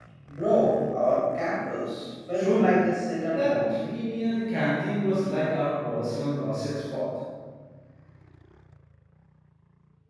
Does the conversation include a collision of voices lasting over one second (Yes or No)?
Yes